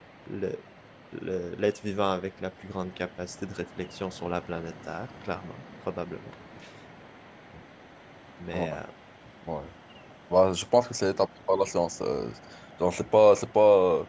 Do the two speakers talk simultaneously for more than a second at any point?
No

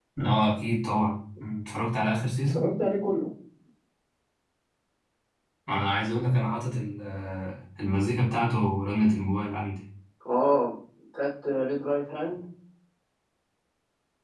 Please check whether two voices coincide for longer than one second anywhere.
No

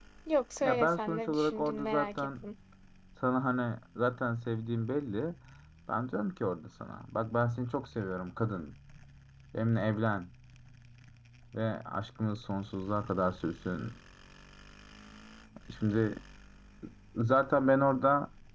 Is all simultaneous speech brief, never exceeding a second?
No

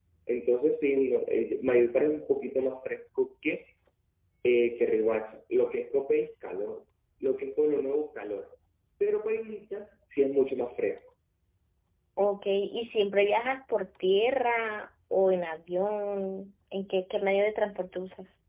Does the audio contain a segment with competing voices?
No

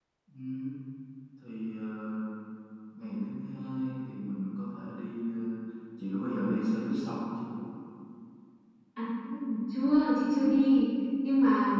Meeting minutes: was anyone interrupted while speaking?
No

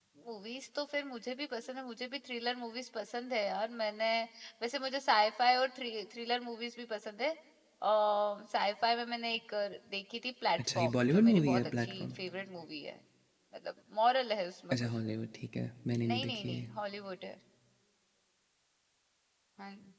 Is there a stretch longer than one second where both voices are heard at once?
Yes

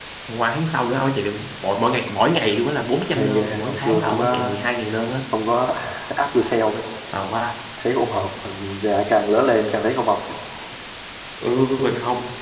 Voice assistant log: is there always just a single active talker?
No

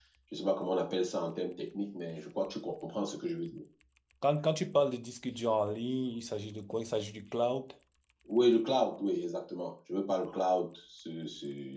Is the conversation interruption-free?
Yes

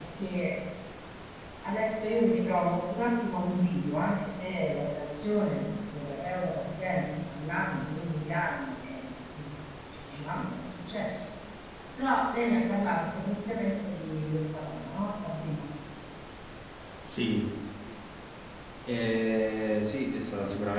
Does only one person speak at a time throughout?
Yes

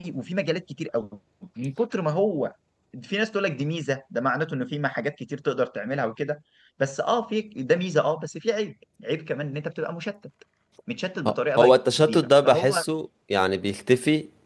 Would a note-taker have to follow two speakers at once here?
Yes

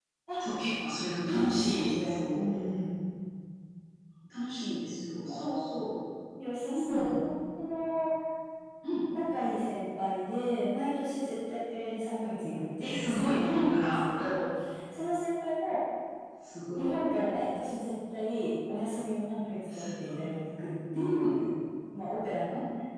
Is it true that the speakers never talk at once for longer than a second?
No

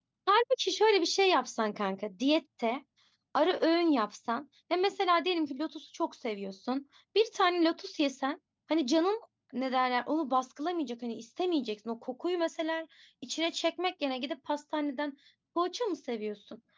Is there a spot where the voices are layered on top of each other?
No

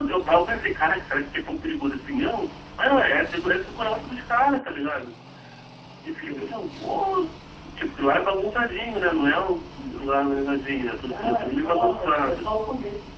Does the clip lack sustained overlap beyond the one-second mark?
No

